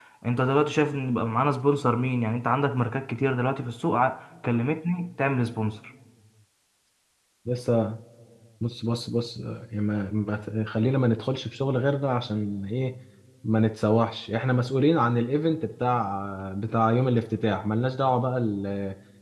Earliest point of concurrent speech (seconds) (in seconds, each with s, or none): none